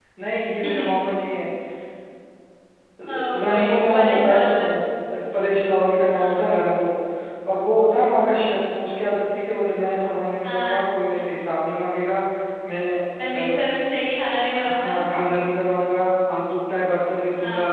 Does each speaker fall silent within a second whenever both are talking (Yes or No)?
No